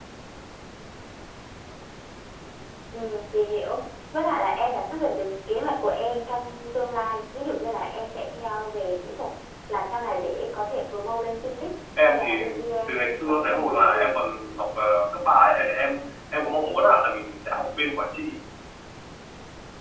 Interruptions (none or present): present